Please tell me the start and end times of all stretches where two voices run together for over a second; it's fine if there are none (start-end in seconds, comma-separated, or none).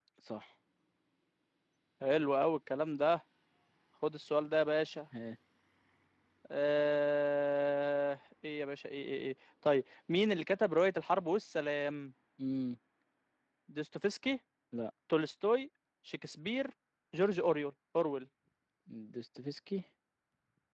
none